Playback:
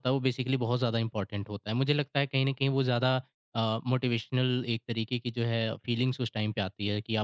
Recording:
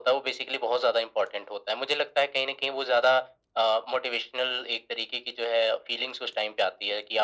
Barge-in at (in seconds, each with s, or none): none